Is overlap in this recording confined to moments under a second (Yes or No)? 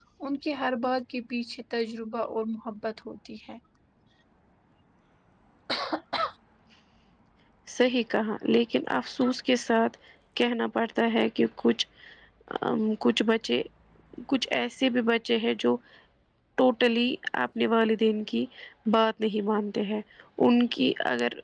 Yes